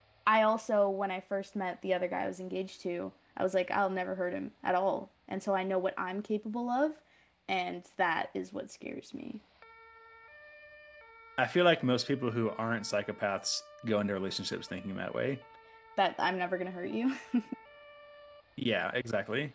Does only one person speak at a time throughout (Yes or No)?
Yes